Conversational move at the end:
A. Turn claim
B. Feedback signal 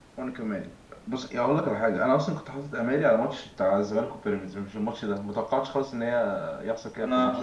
A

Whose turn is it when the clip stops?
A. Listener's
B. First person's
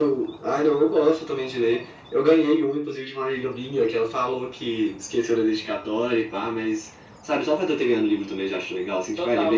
A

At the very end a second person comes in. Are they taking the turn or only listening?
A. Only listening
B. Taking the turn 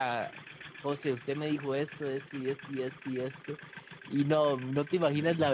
A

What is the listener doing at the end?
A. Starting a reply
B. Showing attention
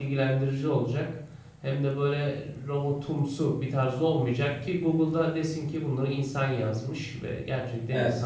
B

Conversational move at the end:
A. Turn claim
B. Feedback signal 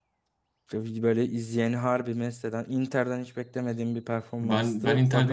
A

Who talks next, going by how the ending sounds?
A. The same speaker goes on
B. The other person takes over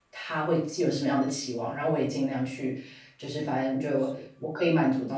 A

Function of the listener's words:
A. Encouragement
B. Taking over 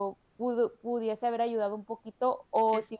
A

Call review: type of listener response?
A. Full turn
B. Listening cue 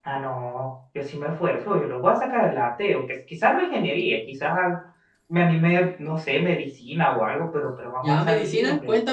A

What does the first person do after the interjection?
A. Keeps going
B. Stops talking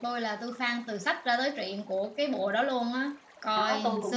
B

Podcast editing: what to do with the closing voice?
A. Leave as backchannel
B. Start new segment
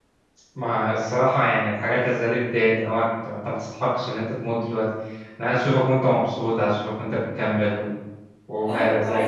B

